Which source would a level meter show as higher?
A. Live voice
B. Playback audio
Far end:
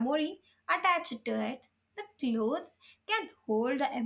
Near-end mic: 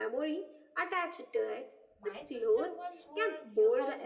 B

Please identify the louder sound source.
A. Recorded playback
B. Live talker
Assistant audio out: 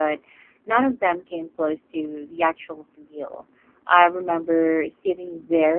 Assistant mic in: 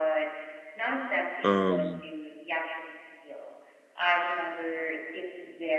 B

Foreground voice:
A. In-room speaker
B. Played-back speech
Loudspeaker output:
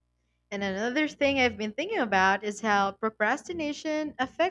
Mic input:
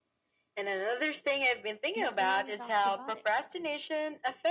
B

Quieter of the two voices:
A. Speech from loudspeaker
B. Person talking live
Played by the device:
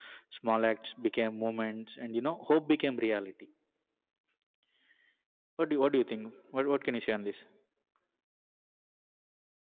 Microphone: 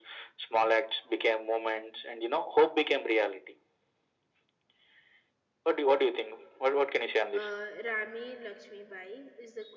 B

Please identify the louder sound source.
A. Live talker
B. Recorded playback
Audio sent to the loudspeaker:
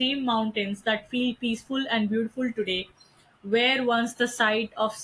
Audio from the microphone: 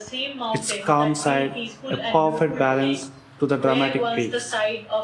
A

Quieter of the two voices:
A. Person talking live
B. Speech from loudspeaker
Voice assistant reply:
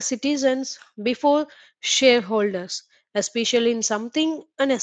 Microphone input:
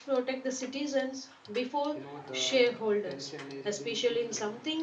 A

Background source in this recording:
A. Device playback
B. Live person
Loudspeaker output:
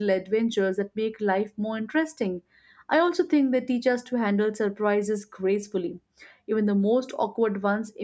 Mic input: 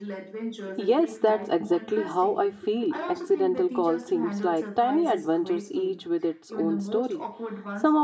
A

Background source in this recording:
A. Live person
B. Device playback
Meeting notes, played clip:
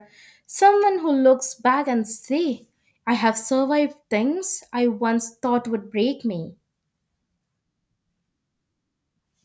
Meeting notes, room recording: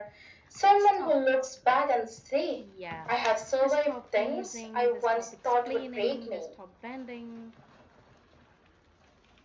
A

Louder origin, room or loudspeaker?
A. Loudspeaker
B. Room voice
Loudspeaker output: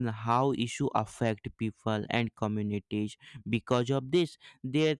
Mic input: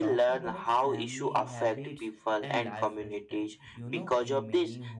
A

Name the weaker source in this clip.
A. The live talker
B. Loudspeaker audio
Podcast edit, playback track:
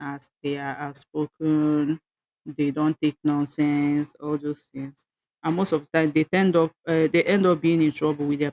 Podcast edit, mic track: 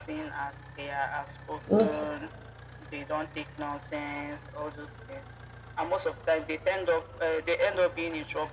B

